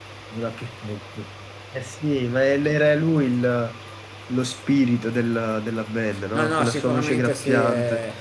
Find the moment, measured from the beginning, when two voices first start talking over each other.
6.3 s

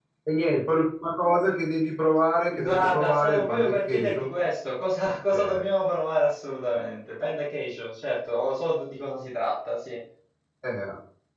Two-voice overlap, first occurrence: 2.6 s

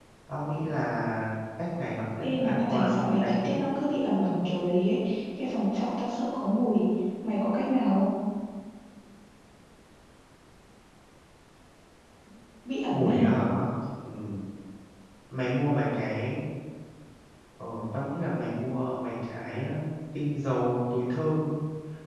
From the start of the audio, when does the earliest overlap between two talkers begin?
2.2 s

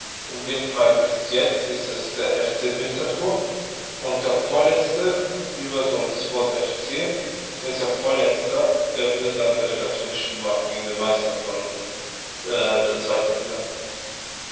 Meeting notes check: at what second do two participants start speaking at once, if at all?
none

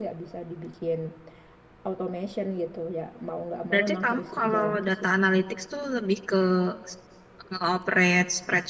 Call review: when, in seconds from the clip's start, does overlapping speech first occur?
3.7 s

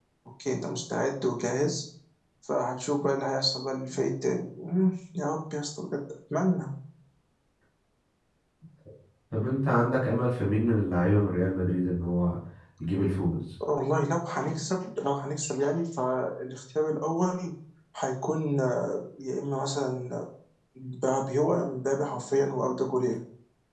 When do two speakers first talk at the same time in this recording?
none

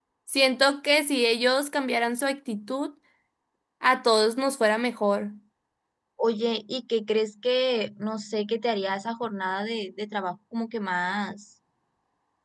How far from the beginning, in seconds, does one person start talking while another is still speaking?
none

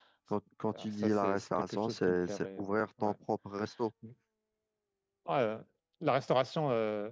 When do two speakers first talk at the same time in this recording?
0.8 s

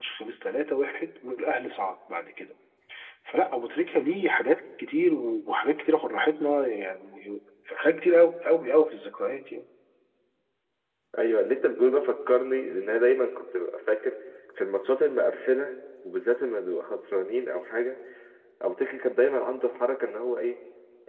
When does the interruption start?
none

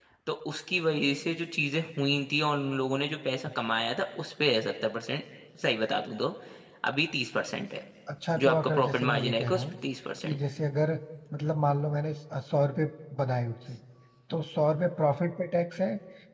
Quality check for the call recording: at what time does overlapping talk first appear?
8.4 s

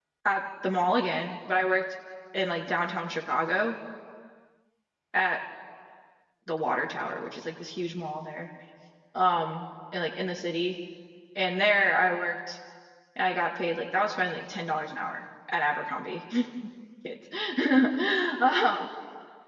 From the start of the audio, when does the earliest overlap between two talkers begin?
none

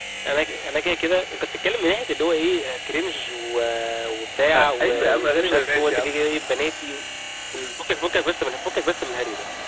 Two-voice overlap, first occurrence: 4.5 s

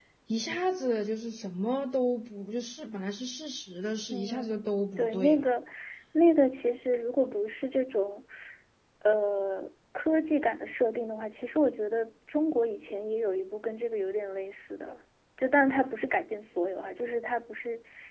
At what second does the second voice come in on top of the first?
4.1 s

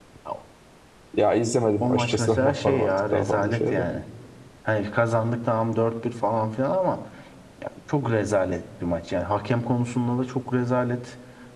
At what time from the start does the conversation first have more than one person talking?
1.8 s

